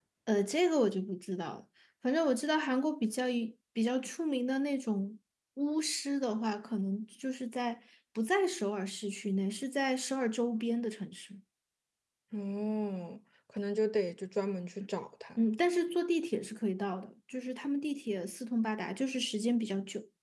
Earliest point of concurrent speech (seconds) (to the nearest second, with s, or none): none